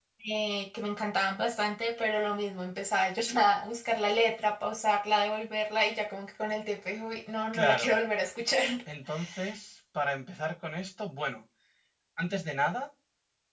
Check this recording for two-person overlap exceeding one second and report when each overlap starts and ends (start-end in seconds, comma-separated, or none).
none